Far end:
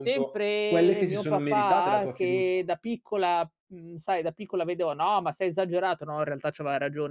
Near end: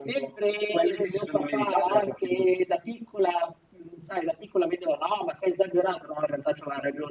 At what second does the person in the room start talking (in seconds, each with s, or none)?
none